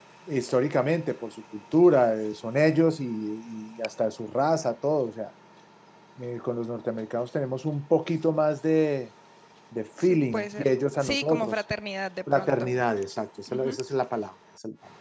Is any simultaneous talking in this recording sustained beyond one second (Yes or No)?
Yes